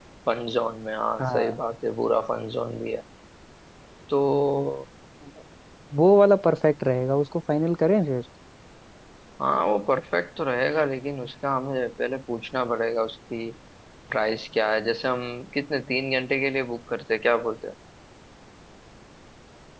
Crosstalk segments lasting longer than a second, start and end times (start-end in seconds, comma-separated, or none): none